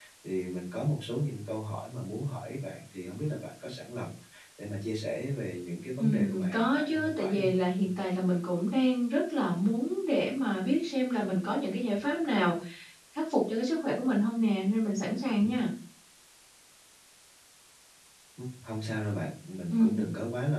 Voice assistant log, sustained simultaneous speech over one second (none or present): present